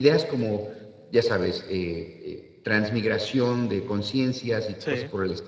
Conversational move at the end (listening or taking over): listening